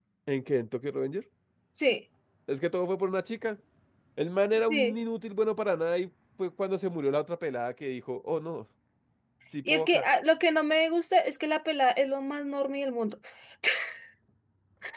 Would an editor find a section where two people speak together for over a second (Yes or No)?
No